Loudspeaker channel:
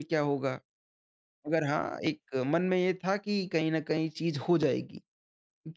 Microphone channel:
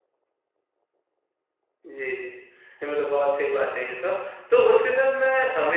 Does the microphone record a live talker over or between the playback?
Yes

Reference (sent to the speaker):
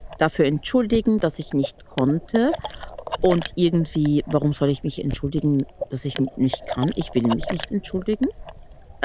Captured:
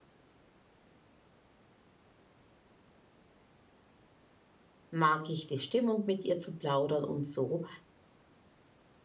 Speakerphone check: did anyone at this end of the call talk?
Yes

